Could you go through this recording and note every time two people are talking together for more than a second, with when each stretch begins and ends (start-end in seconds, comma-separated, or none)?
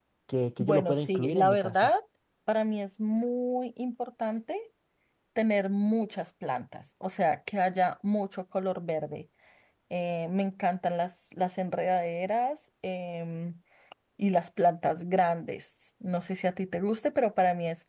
0.6-1.9